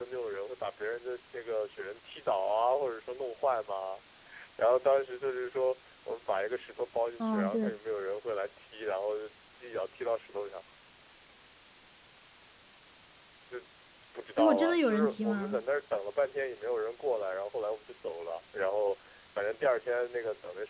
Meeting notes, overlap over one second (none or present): present